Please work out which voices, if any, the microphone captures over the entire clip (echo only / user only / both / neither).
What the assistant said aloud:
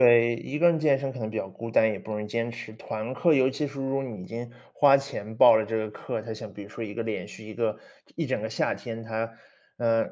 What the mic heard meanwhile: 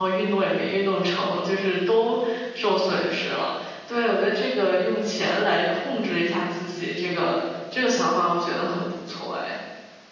user only